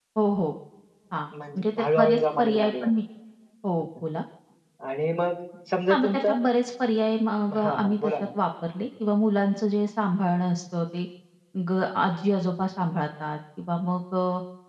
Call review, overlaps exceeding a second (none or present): present